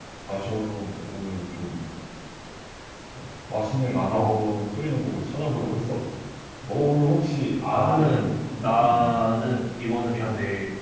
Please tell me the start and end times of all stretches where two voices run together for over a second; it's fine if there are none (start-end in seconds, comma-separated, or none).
7.7-9.2